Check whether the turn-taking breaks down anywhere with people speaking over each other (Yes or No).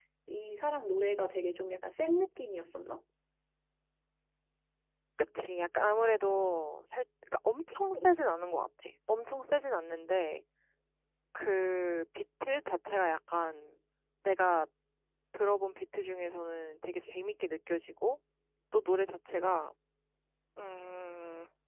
No